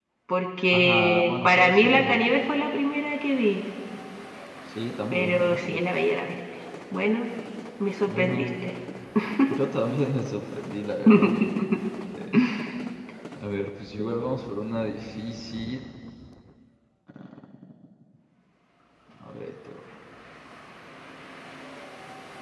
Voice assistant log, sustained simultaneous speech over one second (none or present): present